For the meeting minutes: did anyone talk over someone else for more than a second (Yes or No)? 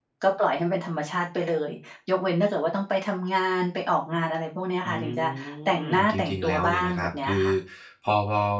Yes